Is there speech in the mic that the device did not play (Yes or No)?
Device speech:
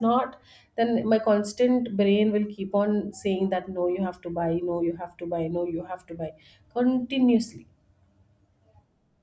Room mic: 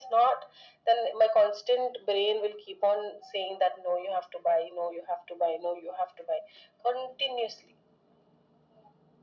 No